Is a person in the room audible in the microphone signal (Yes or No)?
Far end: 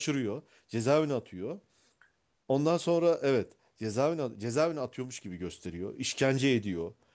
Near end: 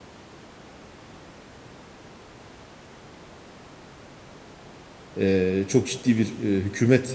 Yes